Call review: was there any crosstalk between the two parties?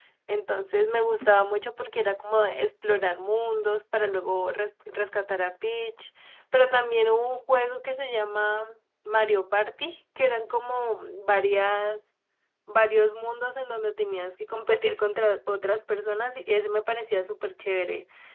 No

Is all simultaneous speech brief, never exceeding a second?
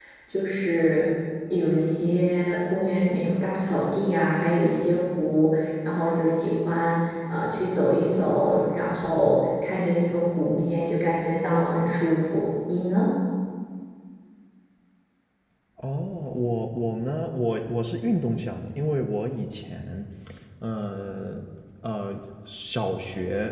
Yes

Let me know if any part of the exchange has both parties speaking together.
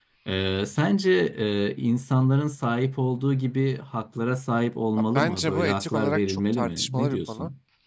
Yes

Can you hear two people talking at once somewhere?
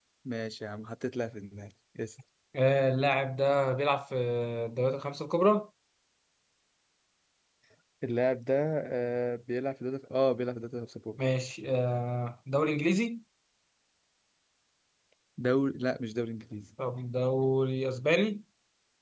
No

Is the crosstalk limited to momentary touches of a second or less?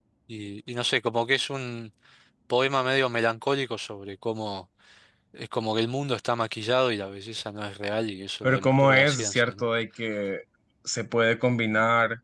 No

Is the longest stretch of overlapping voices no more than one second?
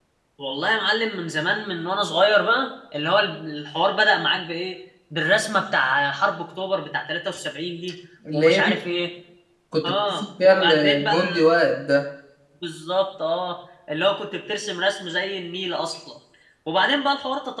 No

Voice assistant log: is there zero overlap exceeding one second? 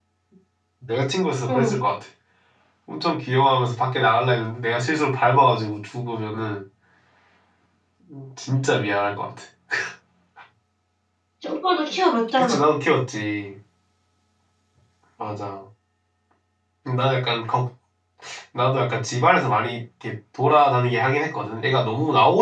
Yes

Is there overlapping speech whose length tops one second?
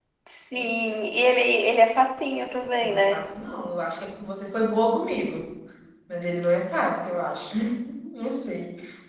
No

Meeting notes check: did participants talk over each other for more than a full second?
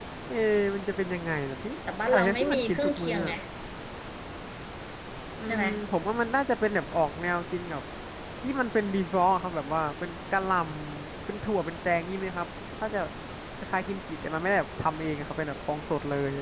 Yes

